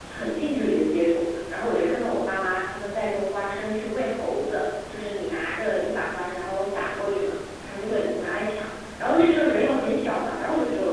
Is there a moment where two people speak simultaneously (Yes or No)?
No